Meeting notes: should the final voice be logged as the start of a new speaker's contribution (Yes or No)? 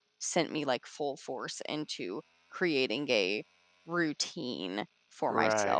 Yes